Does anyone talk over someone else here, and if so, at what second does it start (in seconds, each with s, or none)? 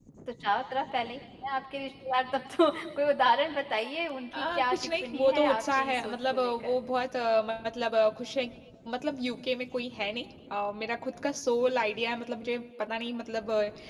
4.3 s